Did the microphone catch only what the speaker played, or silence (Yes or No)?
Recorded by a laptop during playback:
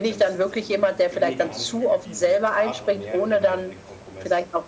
No